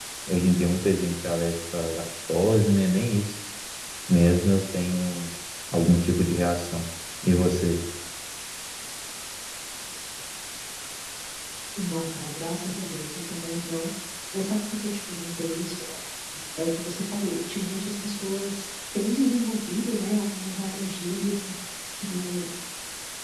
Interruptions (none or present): none